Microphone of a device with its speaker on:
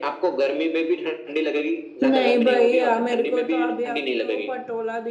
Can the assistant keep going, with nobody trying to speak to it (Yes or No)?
No